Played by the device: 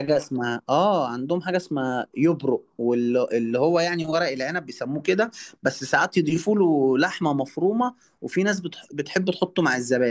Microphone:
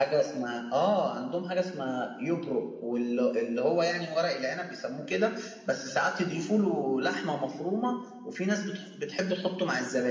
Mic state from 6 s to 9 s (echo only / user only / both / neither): echo only